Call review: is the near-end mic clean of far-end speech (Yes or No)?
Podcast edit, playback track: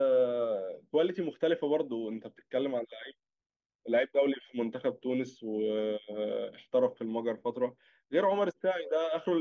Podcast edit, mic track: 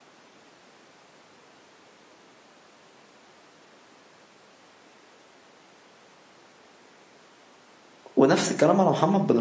Yes